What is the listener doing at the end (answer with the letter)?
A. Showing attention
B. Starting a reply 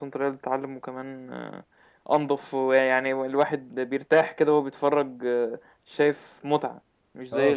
B